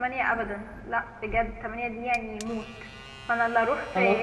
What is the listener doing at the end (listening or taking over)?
listening